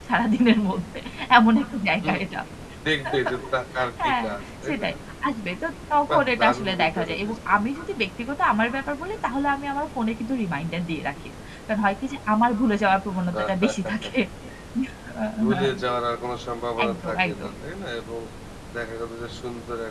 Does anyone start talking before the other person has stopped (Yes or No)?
Yes